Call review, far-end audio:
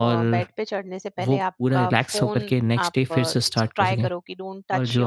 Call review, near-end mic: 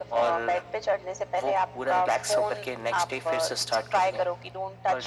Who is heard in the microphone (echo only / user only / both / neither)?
echo only